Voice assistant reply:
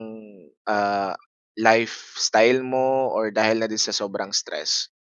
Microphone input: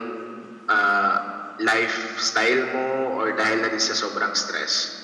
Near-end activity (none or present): none